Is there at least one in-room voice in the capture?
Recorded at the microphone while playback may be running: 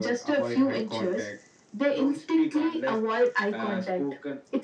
No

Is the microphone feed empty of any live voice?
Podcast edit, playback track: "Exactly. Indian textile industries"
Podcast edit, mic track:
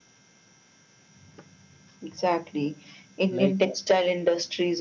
No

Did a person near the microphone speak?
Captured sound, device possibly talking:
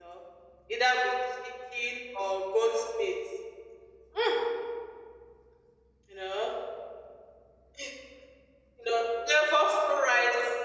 No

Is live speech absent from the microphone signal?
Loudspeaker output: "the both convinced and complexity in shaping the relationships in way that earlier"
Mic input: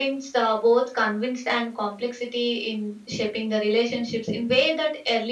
Yes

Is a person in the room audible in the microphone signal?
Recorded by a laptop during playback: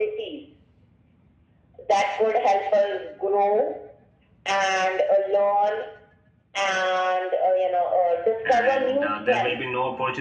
Yes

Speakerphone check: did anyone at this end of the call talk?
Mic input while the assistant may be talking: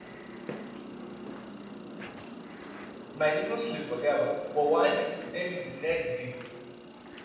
Yes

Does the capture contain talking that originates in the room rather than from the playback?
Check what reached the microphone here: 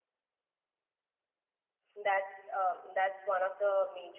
Yes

